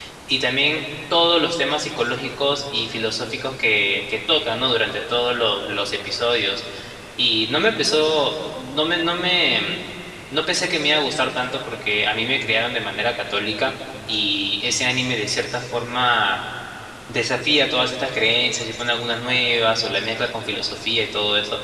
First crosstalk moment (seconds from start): none

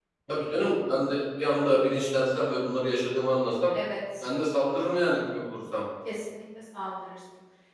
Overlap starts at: none

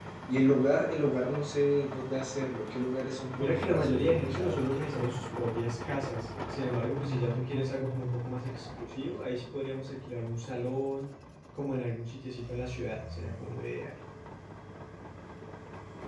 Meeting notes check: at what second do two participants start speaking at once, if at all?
3.4 s

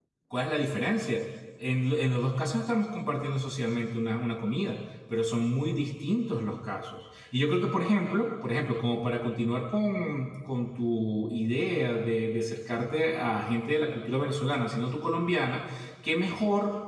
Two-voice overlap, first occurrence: none

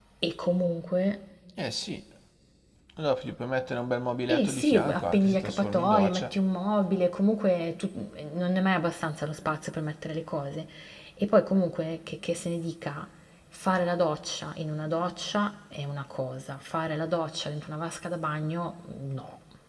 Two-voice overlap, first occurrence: 4.3 s

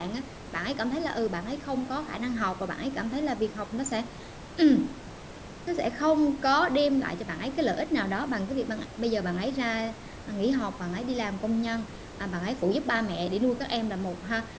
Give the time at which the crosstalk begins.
none

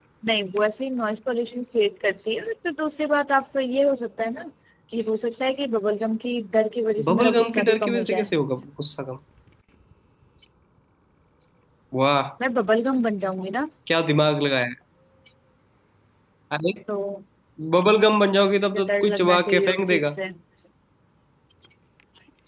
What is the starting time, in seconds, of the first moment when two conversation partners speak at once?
7.1 s

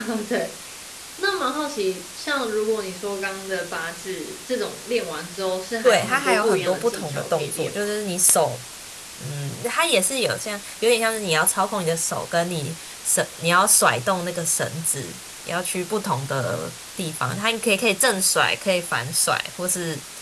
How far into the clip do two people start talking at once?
5.8 s

